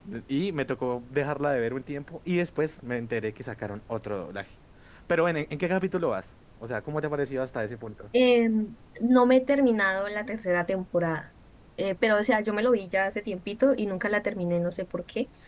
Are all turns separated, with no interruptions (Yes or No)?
Yes